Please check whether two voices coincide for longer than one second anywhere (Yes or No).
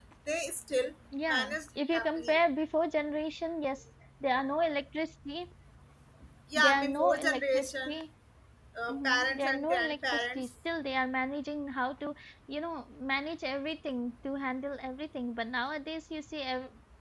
Yes